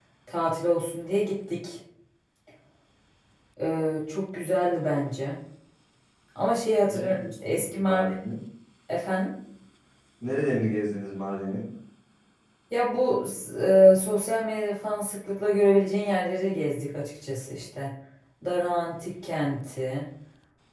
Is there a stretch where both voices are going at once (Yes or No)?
Yes